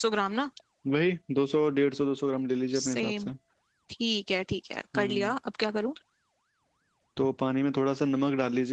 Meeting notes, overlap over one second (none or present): none